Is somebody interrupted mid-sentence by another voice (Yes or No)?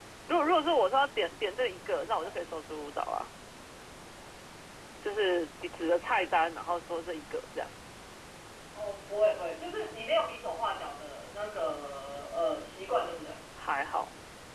No